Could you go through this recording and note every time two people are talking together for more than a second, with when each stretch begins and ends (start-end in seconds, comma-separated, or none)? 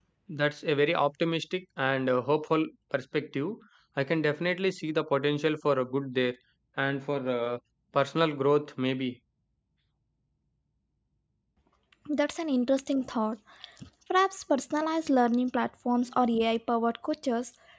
none